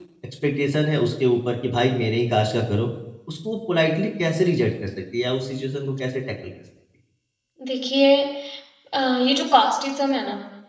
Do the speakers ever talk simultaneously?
No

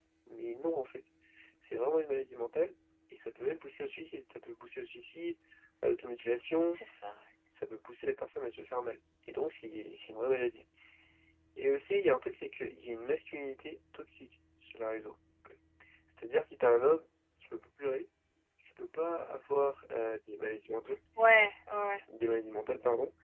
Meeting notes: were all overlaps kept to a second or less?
Yes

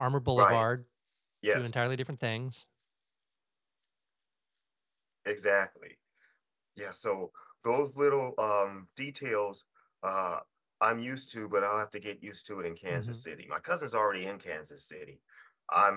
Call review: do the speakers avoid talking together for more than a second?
Yes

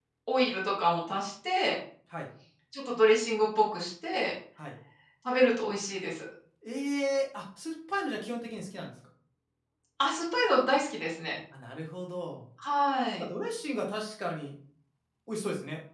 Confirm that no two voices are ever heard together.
Yes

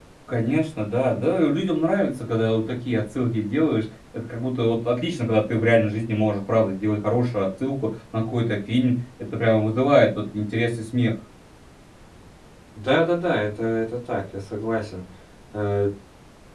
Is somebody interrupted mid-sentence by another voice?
No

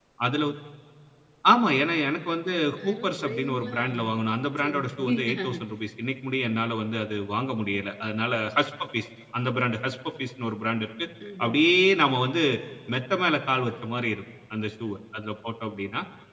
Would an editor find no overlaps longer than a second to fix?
No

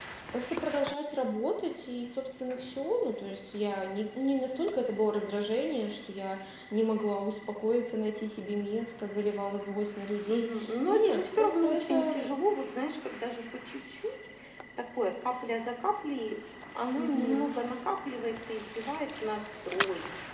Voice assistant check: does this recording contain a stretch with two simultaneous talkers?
Yes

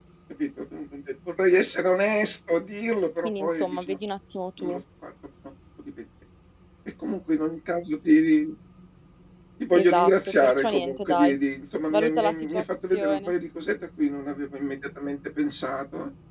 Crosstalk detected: Yes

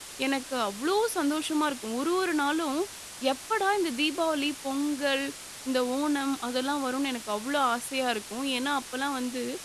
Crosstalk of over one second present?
No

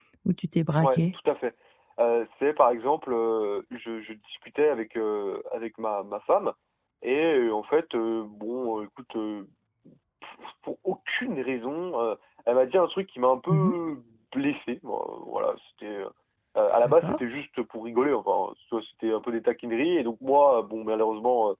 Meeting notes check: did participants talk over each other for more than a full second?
No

